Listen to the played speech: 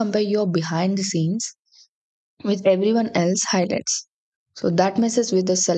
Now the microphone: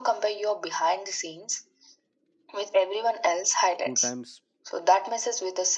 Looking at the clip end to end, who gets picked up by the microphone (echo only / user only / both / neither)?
both